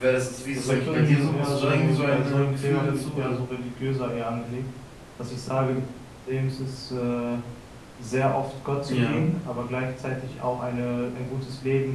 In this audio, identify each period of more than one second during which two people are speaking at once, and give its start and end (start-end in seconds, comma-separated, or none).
0.6-3.4